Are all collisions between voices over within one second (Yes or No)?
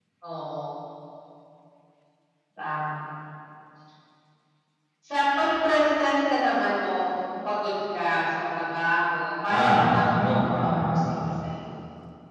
No